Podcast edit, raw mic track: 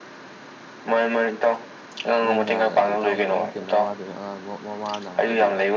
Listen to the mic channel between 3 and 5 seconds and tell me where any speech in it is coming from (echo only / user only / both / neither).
both